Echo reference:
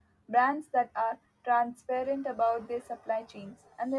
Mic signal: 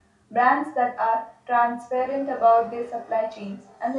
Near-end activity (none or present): none